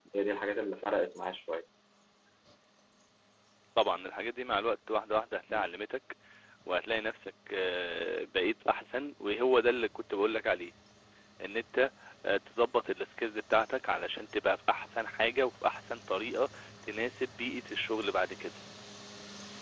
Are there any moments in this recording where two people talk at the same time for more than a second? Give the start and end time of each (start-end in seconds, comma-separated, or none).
none